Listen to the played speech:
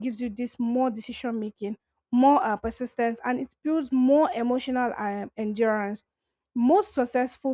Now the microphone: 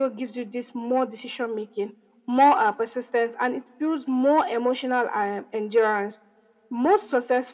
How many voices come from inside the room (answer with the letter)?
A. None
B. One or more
A